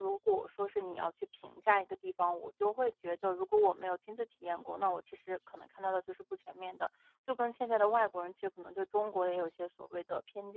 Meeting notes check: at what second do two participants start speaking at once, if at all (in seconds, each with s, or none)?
none